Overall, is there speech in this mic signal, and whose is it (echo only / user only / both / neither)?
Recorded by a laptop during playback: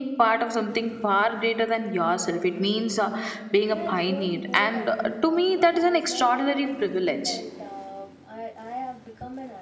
both